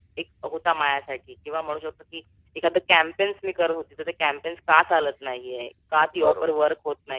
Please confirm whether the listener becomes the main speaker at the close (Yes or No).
No